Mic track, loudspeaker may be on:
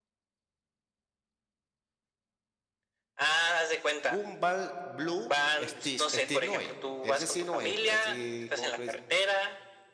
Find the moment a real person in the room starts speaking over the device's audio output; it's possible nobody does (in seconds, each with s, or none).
4.0 s